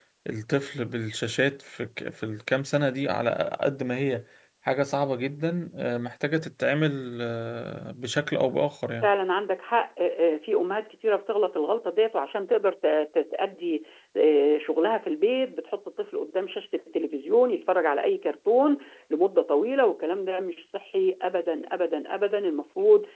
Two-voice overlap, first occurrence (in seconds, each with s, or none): none